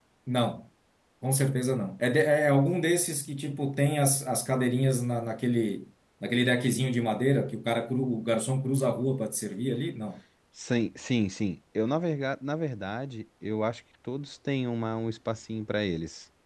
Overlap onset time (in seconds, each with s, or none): none